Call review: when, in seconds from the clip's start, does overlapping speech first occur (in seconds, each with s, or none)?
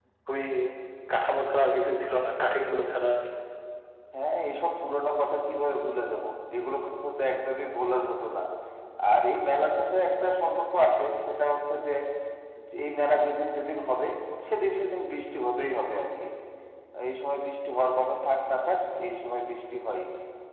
none